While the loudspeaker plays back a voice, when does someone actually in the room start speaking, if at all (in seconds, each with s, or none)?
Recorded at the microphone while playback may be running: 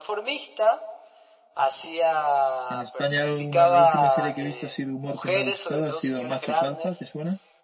2.7 s